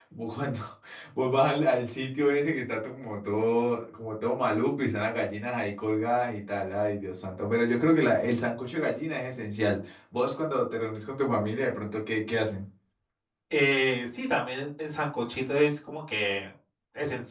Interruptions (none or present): none